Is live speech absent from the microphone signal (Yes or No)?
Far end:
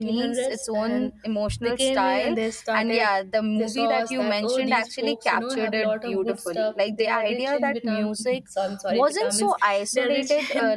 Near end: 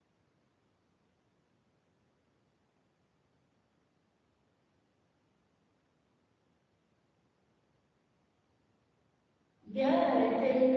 No